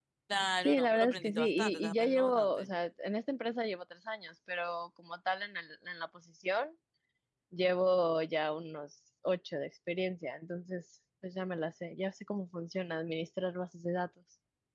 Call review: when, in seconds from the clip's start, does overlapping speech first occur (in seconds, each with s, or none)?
0.7 s